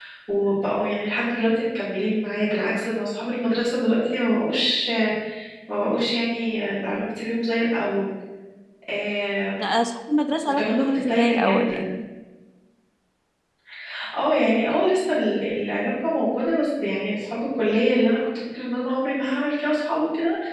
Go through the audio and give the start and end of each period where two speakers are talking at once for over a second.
10.5-11.8

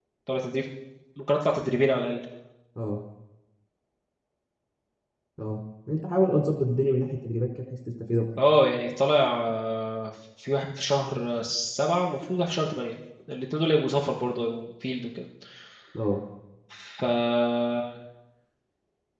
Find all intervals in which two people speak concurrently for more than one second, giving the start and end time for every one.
none

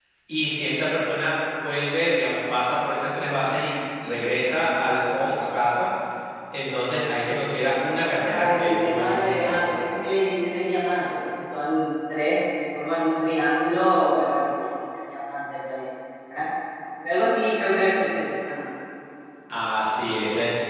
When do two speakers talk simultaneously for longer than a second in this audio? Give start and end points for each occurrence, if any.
8.3-9.6

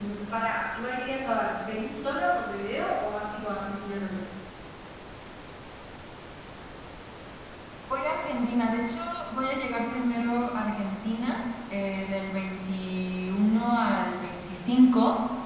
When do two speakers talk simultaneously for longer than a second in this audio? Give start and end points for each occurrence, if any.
none

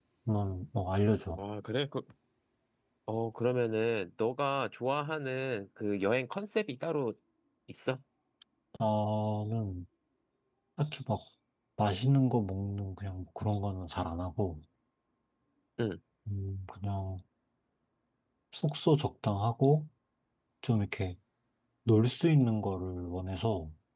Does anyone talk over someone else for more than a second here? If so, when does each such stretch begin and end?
none

